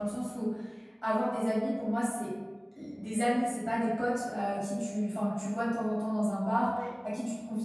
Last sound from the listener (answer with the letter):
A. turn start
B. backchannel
B